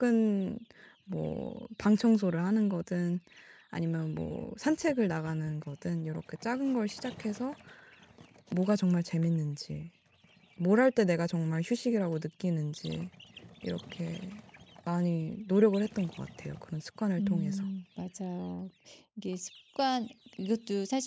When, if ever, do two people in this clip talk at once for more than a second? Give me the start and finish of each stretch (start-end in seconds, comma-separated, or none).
none